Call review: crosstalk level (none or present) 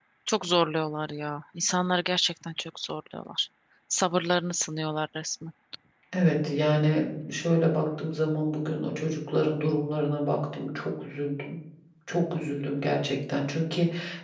none